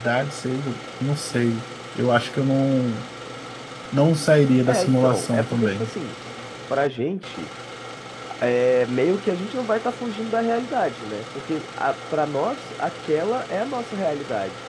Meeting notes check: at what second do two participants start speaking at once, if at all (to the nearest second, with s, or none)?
5 s